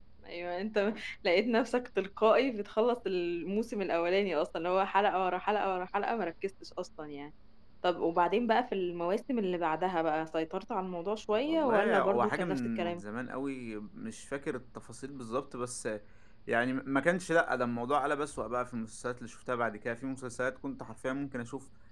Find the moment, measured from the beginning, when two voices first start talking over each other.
11.3 s

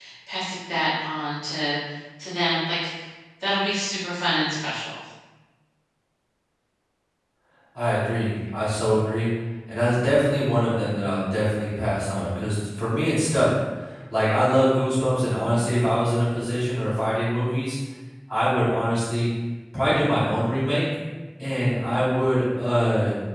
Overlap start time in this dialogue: none

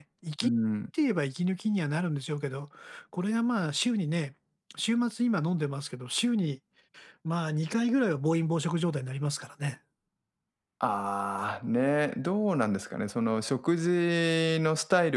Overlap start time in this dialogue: none

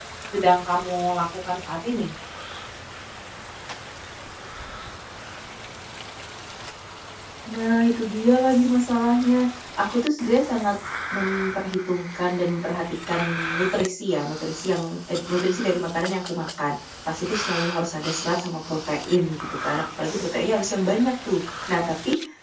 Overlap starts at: none

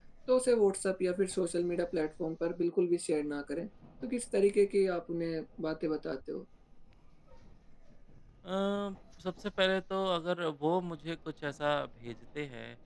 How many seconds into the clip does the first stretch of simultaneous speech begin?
none

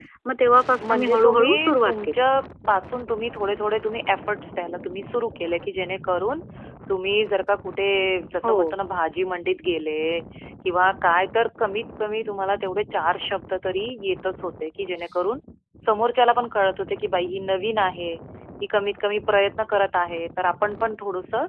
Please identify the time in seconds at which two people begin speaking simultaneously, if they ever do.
0.9 s

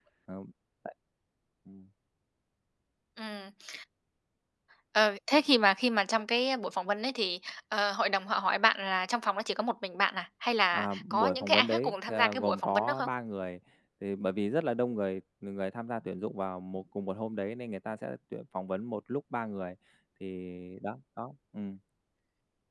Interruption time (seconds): 10.7 s

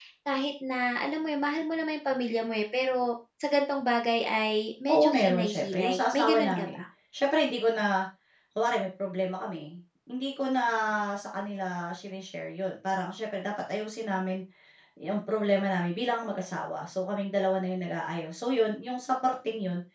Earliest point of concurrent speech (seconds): 4.9 s

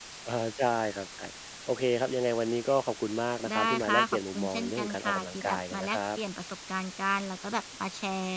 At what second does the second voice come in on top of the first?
3.5 s

